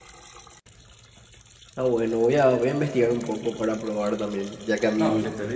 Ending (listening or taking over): taking over